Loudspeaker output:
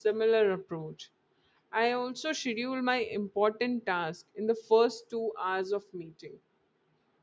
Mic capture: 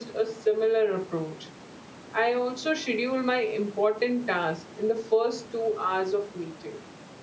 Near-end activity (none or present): none